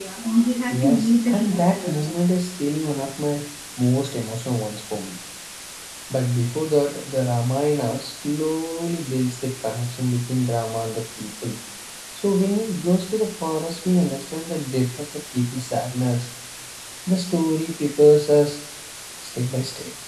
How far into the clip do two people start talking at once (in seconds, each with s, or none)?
0.8 s